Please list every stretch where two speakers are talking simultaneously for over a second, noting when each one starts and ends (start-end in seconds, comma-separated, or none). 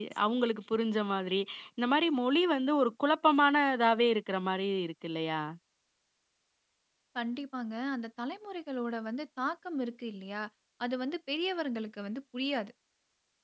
none